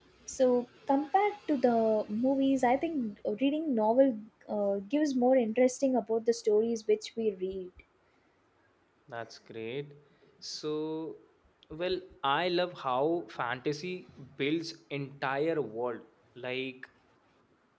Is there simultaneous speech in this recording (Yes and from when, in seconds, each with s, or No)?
No